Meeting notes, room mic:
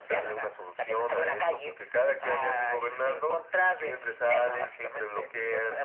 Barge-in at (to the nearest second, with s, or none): none